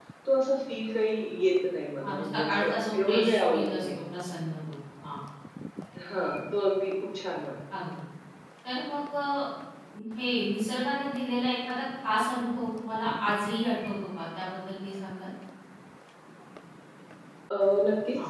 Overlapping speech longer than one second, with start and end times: 2.0-3.8

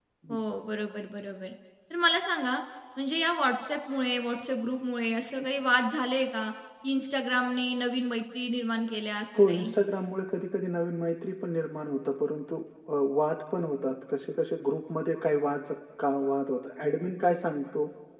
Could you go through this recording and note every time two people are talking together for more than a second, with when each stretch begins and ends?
none

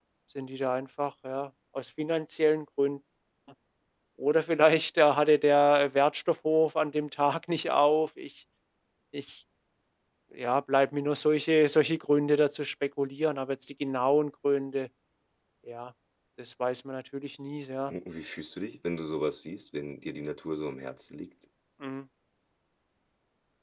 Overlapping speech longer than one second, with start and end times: none

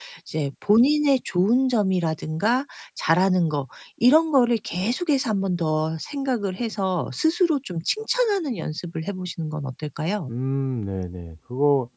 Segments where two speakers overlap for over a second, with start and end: none

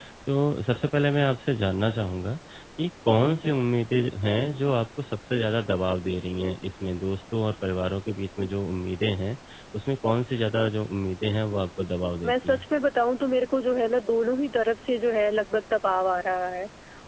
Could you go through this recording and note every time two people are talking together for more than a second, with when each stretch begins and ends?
none

